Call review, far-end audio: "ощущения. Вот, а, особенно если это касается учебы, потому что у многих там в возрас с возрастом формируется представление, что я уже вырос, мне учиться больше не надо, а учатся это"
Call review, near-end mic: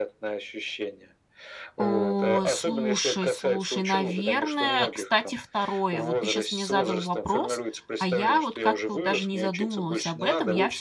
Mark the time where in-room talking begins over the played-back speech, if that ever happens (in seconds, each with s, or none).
1.8 s